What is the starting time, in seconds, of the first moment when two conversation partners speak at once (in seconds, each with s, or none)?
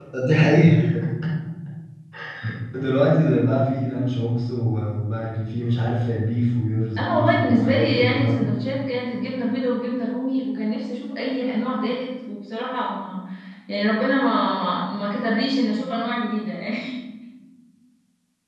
7.0 s